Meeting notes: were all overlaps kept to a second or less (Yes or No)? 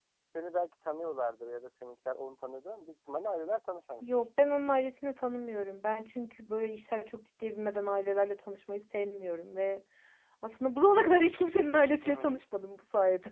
Yes